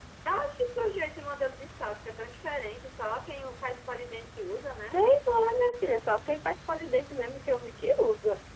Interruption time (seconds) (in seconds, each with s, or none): none